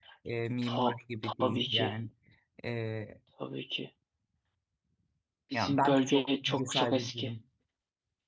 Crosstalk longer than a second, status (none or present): present